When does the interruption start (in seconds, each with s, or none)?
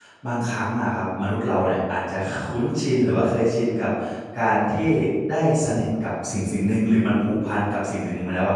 none